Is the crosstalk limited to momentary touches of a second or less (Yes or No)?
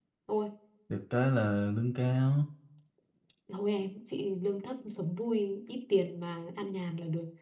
Yes